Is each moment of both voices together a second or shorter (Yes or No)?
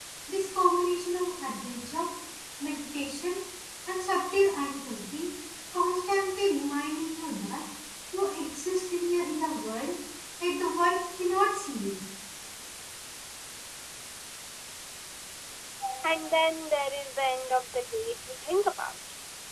Yes